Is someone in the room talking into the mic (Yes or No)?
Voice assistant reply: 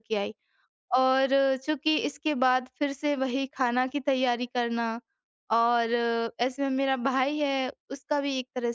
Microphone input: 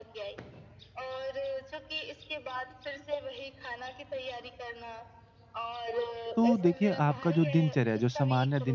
Yes